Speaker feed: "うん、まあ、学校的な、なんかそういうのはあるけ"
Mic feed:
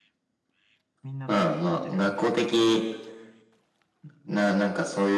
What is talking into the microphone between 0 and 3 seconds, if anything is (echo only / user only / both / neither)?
both